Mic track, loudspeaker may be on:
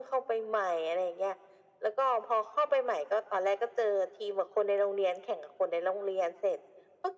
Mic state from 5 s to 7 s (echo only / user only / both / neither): echo only